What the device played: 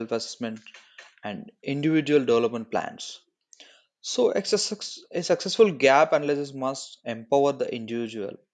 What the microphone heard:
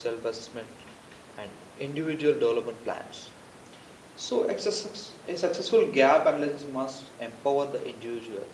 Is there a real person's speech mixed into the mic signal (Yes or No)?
No